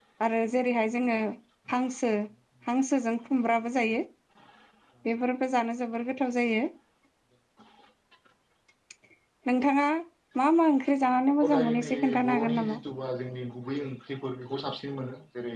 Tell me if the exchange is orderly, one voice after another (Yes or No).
No